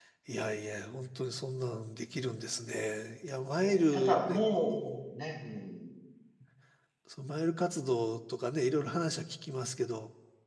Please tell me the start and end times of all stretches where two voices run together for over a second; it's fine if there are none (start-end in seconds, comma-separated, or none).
3.6-5.0